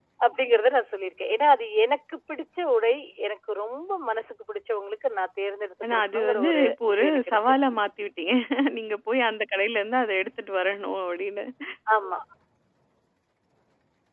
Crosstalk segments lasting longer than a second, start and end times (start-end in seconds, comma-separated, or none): 5.9-7.4